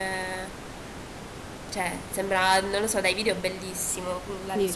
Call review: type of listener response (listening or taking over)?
taking over